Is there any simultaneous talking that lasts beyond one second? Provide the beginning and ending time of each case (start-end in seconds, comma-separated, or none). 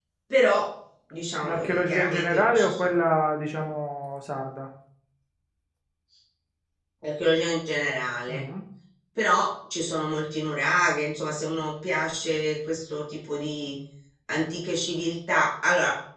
1.4-2.9